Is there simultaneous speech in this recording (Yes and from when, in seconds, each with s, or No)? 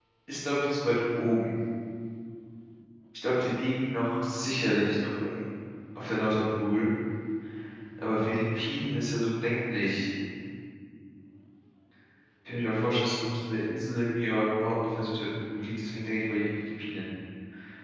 No